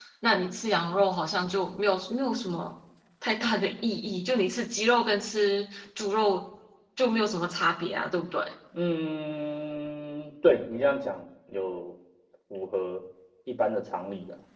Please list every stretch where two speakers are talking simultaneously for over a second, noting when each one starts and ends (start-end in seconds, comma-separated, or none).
none